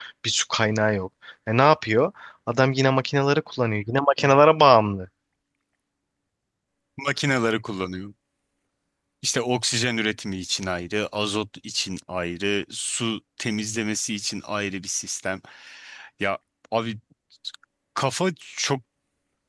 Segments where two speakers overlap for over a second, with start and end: none

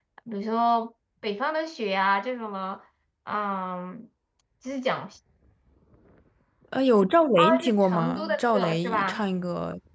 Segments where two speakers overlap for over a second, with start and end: 7.6-9.2

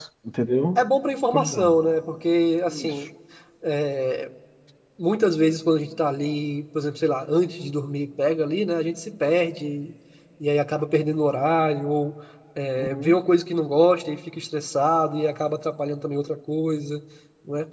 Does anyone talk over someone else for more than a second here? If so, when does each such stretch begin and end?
none

